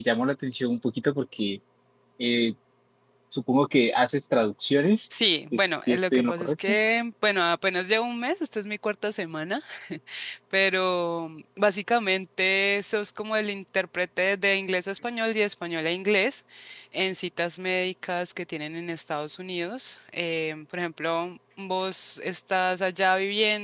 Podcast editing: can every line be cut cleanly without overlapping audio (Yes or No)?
No